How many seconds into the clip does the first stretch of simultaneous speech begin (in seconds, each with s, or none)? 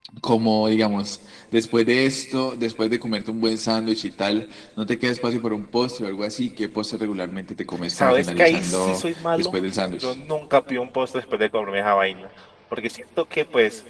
7.9 s